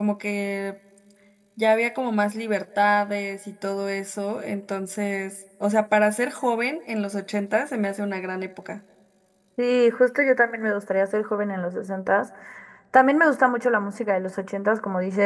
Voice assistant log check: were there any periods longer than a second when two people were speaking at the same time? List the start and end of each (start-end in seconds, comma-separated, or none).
none